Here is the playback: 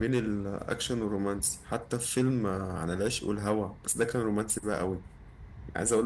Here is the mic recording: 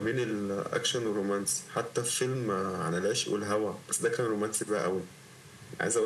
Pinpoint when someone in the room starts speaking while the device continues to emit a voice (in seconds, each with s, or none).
none